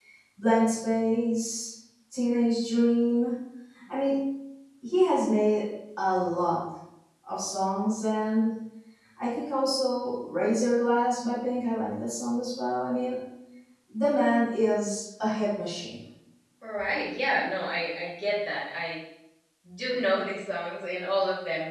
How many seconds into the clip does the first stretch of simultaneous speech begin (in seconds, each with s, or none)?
none